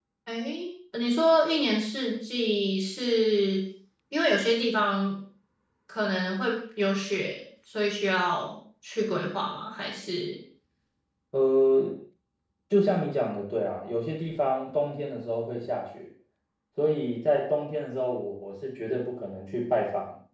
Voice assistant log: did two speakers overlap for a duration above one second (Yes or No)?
No